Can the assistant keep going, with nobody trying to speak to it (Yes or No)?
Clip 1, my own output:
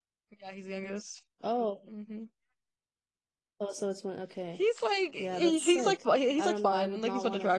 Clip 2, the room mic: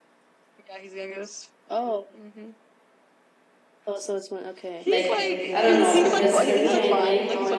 No